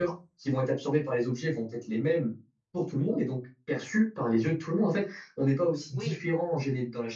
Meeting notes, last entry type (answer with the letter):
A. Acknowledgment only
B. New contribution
A